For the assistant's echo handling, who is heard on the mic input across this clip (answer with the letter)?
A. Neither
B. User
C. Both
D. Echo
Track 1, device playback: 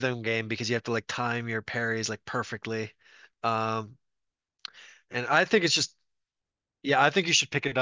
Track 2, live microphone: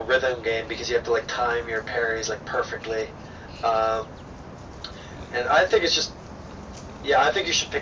D